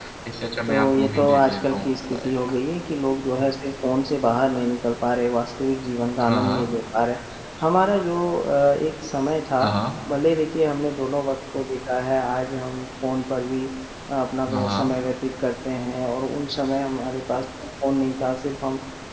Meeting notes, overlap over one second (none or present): present